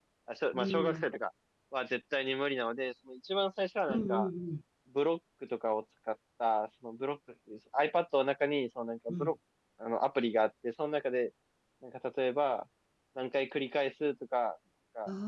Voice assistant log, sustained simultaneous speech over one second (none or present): none